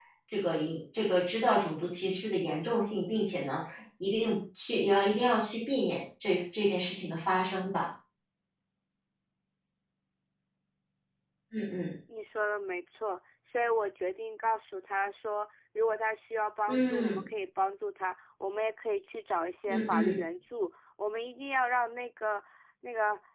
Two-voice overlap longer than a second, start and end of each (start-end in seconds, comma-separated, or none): none